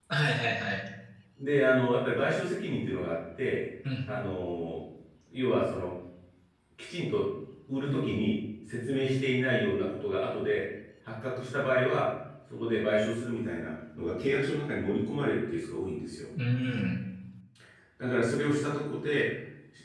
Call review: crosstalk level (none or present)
none